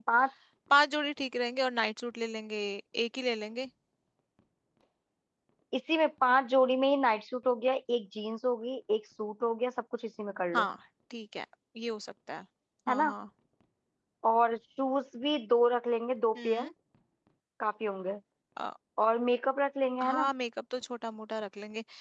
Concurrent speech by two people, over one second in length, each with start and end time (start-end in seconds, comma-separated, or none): none